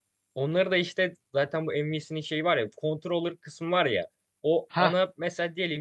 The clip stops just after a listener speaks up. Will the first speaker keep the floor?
Yes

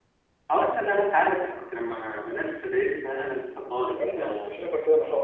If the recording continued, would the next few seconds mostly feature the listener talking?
Yes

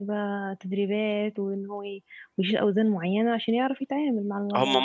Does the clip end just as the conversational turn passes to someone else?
Yes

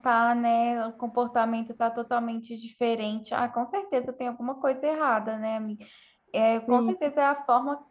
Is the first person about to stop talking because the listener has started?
No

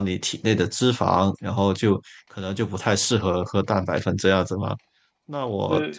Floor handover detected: No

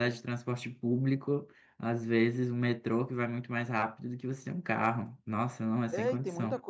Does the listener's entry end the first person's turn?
Yes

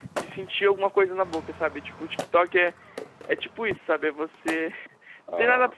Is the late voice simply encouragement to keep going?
Yes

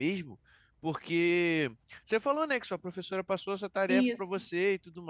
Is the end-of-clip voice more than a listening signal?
No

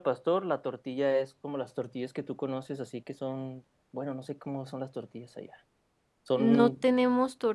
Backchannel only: No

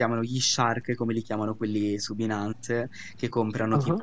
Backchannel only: Yes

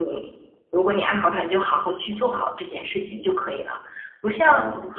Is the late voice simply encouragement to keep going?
Yes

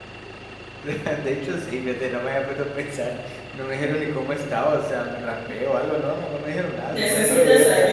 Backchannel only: No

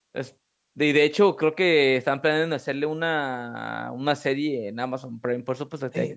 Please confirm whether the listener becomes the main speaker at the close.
Yes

